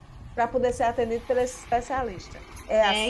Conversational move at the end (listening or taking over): taking over